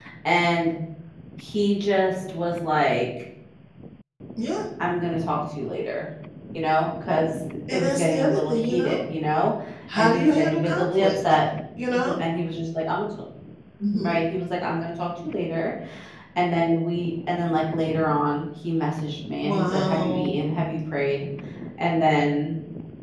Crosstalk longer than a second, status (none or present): present